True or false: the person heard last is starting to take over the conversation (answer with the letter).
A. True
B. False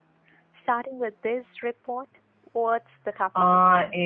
A